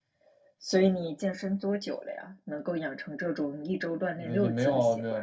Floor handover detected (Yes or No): Yes